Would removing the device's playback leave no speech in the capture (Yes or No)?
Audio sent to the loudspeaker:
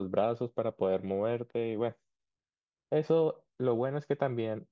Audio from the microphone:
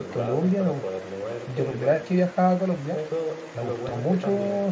No